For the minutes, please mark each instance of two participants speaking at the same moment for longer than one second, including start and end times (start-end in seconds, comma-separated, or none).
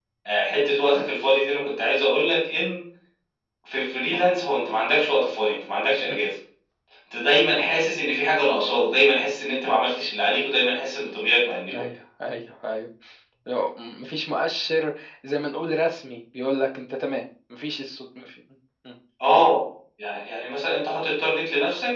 none